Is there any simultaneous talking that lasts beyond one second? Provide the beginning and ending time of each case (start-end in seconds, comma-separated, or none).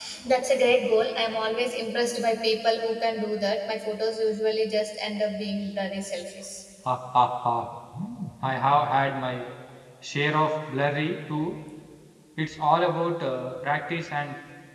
none